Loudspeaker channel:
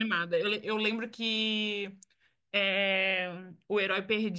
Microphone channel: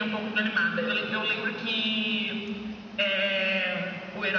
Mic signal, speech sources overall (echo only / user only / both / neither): echo only